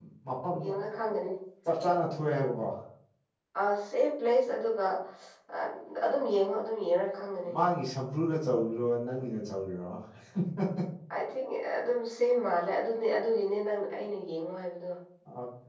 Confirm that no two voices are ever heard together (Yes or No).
Yes